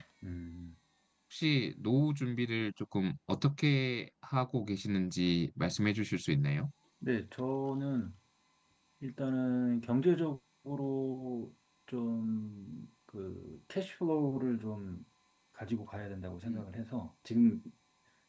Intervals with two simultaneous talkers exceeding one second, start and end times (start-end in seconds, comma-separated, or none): none